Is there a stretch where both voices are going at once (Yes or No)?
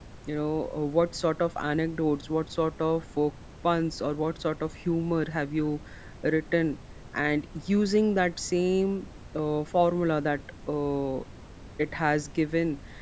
No